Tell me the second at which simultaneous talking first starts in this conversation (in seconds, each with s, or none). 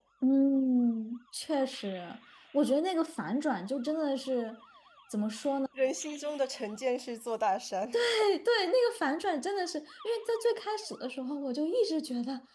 none